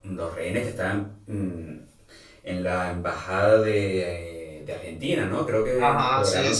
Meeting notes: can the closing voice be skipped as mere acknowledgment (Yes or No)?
No